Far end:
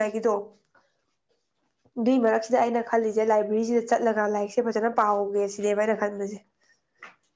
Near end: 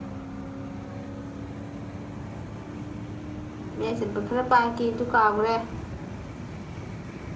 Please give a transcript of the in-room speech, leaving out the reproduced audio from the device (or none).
ꯃꯌꯥꯏ ꯆꯟꯕ ꯈꯔ ꯄꯥꯈꯤ ꯑꯗꯨ ꯀꯥꯎꯒ꯭ꯔꯦ